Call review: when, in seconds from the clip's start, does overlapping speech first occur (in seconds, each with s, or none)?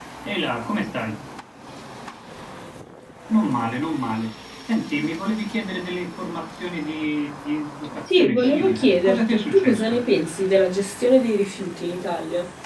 8.1 s